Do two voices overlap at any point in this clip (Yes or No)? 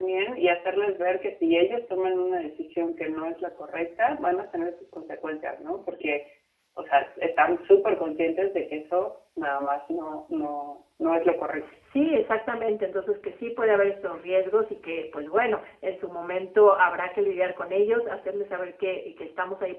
No